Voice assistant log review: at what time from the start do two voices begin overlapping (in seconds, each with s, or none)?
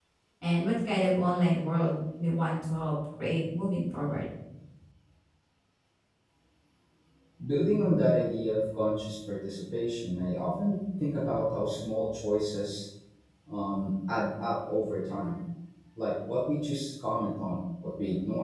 none